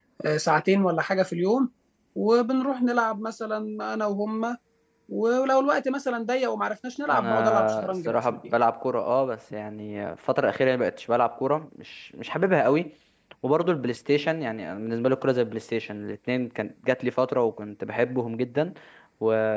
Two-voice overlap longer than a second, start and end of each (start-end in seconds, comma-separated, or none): 7.1-8.4